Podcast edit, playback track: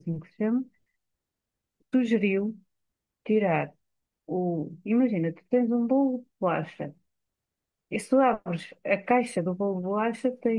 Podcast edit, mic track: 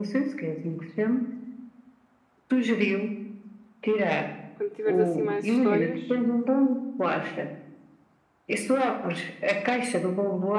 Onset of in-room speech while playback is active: 5 s

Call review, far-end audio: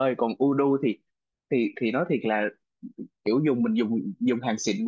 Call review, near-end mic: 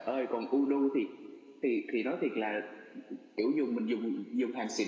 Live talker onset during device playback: none

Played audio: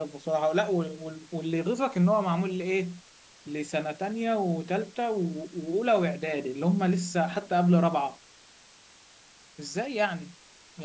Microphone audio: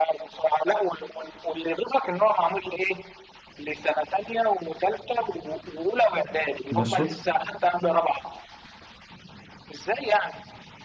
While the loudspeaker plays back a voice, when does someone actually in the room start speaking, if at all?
7 s

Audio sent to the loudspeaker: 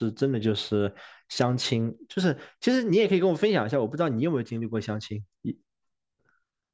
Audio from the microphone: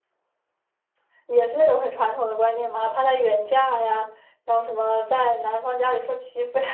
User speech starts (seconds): 1 s

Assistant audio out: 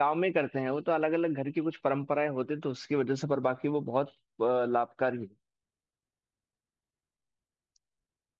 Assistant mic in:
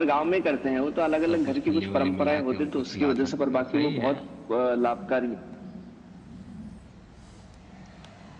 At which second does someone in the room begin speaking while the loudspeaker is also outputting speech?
1 s

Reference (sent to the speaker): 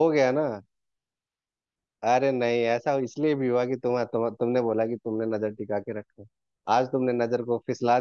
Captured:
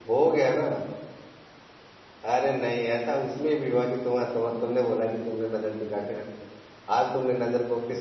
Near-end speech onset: none

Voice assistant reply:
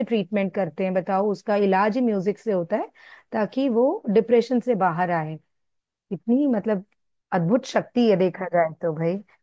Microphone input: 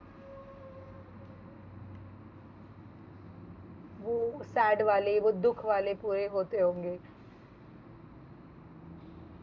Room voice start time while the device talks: 4 s

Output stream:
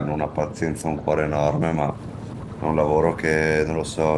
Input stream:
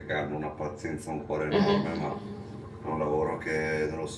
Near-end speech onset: 1 s

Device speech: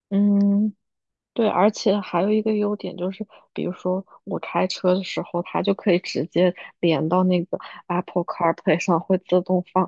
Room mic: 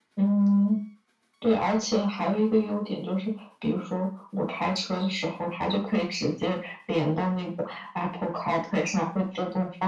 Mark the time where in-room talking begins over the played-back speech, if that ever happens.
none

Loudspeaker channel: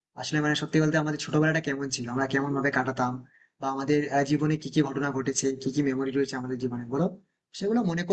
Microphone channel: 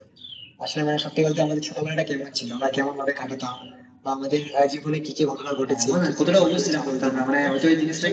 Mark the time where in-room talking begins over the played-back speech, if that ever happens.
6 s

